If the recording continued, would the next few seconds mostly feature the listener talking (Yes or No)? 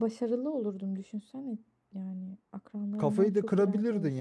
Yes